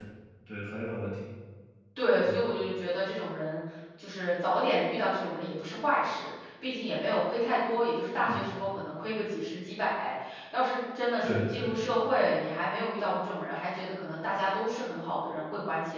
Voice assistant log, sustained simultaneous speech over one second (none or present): none